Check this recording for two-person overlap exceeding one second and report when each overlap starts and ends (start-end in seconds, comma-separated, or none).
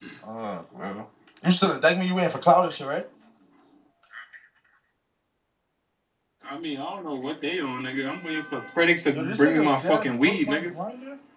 9.1-10.7